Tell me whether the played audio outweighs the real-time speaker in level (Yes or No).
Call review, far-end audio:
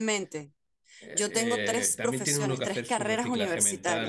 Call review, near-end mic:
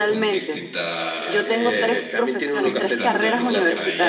Yes